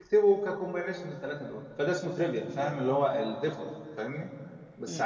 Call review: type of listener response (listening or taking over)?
listening